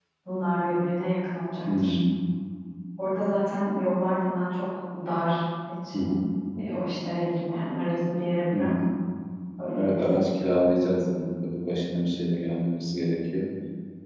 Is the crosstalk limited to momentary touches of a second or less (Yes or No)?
Yes